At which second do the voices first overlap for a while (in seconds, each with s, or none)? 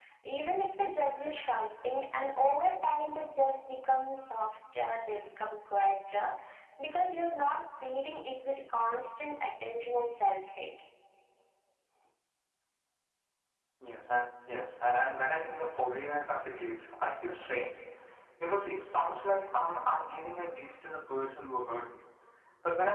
none